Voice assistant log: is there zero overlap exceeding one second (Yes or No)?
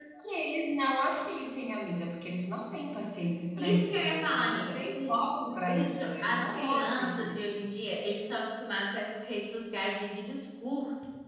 No